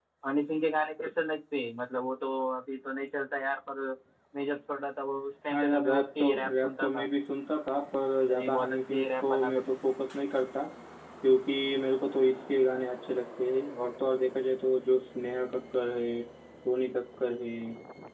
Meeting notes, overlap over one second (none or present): present